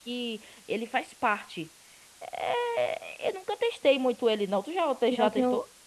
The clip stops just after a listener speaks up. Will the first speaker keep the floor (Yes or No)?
No